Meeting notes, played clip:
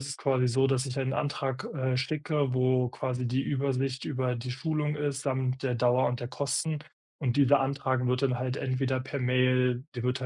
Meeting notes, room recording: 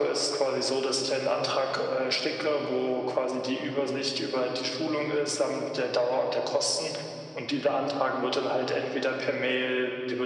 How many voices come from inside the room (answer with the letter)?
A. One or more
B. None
B